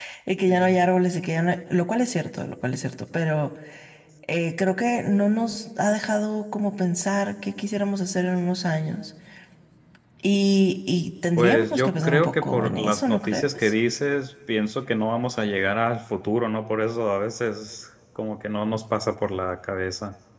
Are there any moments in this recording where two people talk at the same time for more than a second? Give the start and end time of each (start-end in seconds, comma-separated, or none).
11.4-13.7